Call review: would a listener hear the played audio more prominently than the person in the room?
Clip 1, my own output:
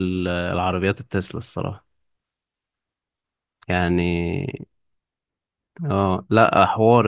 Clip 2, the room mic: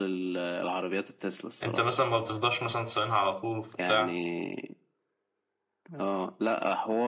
No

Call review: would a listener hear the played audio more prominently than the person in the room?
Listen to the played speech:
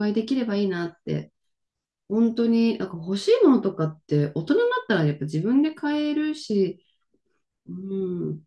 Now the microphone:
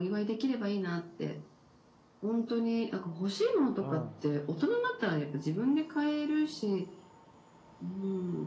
Yes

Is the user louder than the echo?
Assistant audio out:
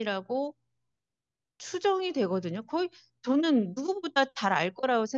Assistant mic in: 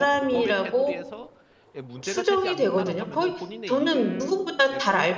No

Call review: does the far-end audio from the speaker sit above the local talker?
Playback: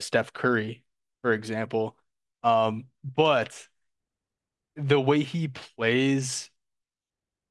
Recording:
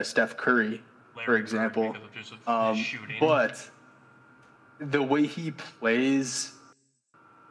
Yes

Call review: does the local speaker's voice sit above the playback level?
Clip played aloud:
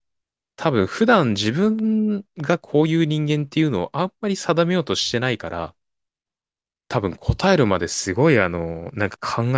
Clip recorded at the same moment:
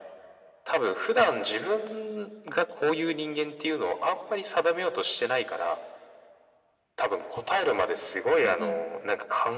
No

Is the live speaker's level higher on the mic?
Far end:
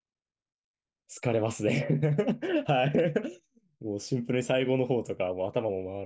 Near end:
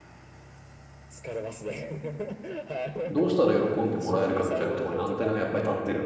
Yes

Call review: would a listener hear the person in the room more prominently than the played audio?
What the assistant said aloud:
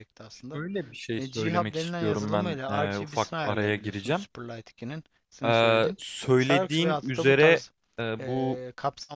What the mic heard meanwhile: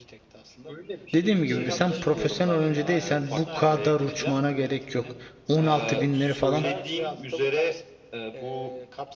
Yes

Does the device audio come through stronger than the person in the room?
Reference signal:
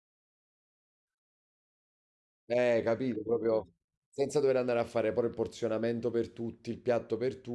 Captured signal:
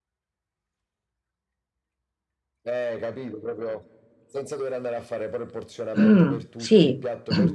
No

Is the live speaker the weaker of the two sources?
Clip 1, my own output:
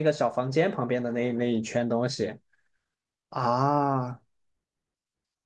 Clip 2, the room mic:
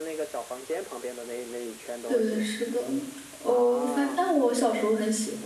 No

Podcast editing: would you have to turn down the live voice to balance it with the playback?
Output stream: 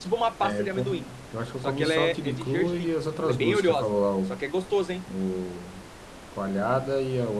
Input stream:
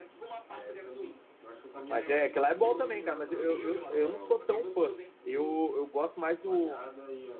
Yes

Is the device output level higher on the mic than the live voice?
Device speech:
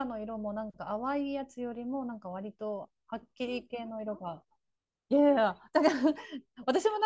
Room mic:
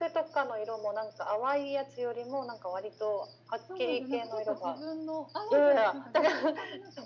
Yes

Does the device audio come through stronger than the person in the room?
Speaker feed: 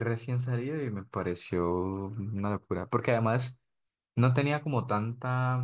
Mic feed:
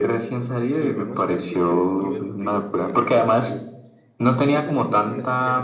Yes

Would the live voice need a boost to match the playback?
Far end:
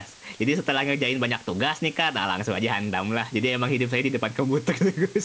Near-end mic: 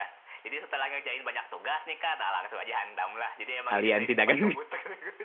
No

